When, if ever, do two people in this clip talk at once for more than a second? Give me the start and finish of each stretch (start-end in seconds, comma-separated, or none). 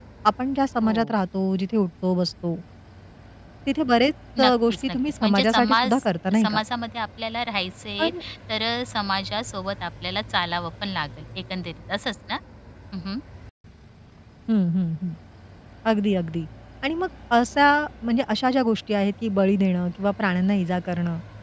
4.4-5.9